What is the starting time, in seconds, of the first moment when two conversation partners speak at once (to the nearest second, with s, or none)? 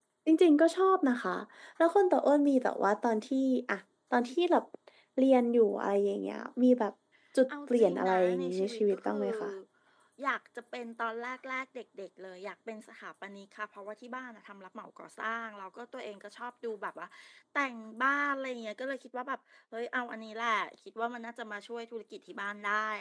7 s